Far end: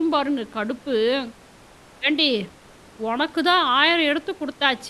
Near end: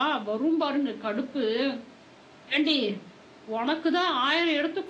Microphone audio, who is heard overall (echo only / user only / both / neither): echo only